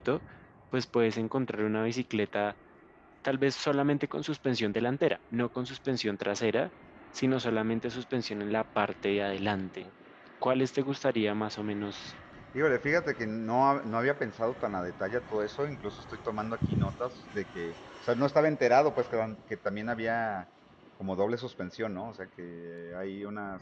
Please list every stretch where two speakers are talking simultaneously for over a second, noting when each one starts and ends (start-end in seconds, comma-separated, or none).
none